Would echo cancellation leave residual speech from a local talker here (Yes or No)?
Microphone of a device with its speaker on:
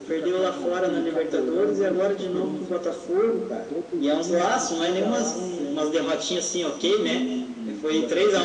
No